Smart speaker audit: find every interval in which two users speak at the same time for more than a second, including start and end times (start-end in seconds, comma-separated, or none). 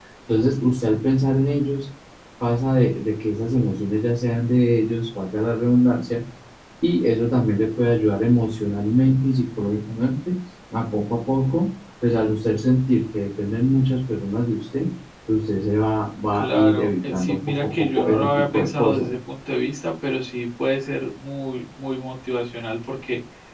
16.3-19.1